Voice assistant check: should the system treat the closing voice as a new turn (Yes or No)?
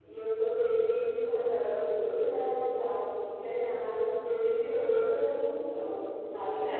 No